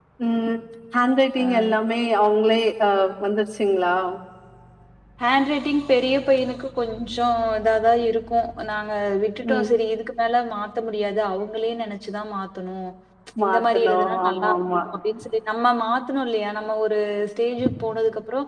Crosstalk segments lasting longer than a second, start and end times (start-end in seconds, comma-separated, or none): 13.4-14.8